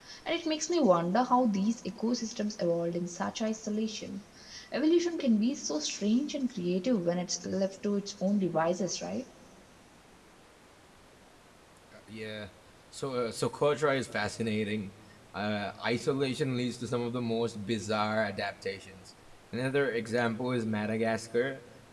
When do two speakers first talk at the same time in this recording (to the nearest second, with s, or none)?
none